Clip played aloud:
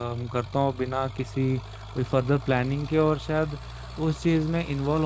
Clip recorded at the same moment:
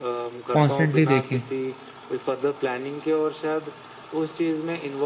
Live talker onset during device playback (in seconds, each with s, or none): 0.5 s